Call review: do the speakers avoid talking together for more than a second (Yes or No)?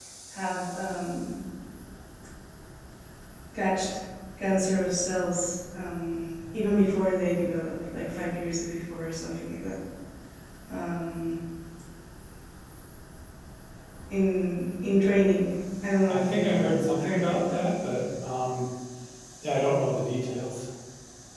No